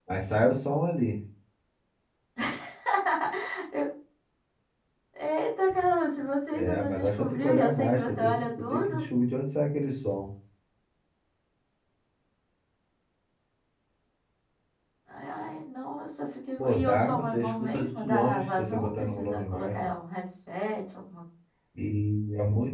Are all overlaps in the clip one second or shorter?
No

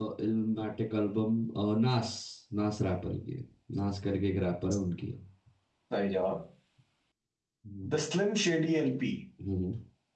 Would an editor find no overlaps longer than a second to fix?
Yes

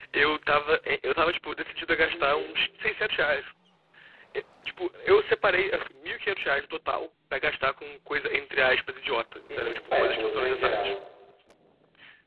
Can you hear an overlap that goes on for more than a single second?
Yes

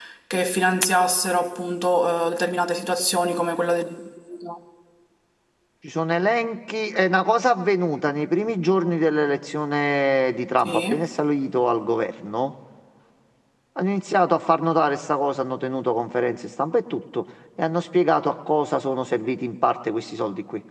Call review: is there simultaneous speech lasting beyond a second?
No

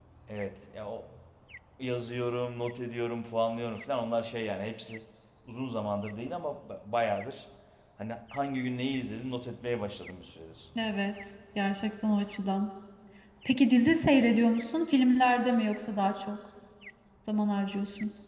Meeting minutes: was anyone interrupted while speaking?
No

